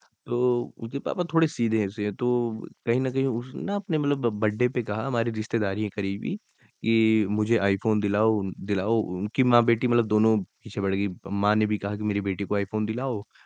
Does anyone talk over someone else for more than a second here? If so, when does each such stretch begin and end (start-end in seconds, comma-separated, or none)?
none